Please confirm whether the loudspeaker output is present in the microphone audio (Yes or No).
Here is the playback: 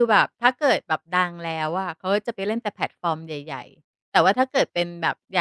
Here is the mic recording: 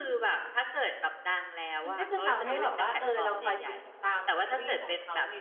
Yes